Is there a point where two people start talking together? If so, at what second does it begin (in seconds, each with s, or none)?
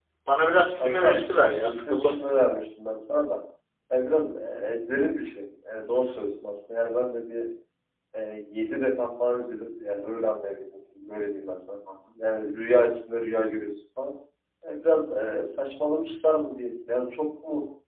0.8 s